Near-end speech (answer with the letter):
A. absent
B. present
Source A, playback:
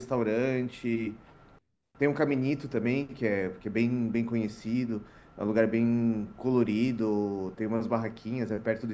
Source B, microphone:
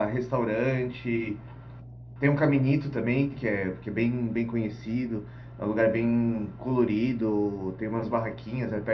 A